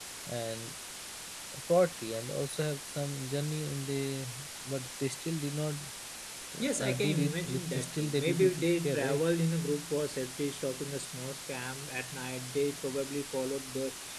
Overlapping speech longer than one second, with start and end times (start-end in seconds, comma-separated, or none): 6.8-9.2